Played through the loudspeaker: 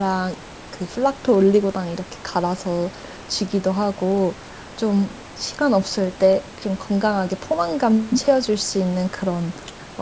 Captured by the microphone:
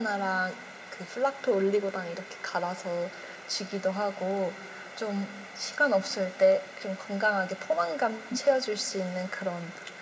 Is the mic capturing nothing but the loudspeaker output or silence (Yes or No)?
Yes